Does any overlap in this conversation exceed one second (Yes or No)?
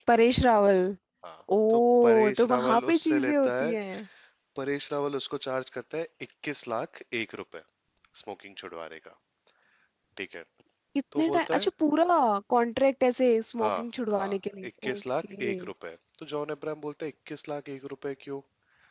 Yes